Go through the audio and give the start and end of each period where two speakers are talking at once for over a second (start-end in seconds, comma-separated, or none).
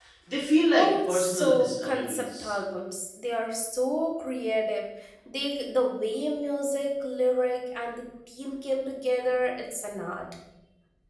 0.7-2.5